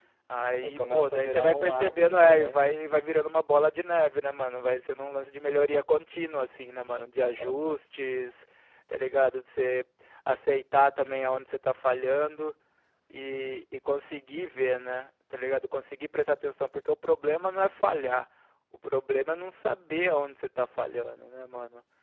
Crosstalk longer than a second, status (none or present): present